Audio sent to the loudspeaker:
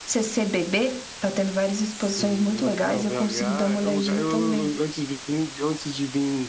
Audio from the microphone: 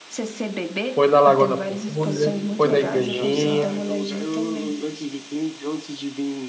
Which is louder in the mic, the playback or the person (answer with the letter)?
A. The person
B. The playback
A